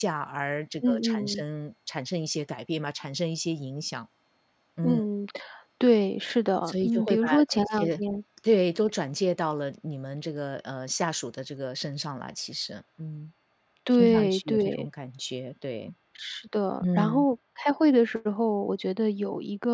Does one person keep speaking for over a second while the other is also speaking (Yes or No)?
Yes